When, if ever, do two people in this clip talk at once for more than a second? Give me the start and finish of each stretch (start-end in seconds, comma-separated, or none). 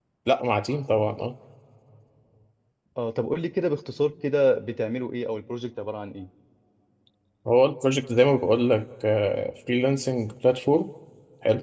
none